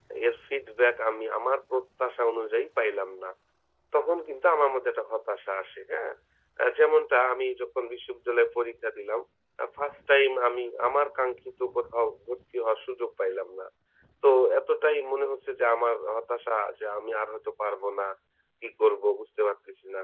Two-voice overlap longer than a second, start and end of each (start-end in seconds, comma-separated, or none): none